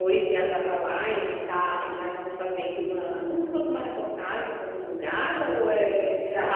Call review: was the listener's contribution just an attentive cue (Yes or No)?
No